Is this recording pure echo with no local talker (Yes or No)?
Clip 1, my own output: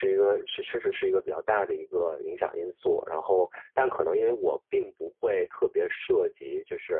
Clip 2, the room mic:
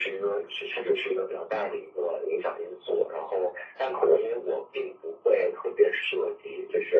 Yes